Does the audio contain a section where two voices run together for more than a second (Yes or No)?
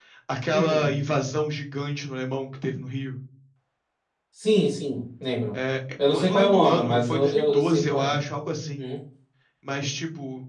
Yes